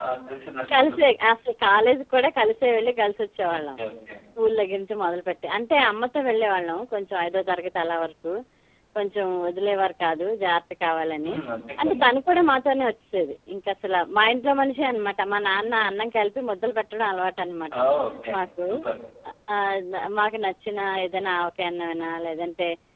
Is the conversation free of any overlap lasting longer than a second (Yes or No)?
Yes